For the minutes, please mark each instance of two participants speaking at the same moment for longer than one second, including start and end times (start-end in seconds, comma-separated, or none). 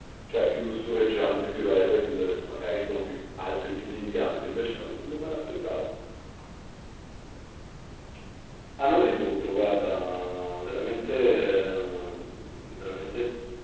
none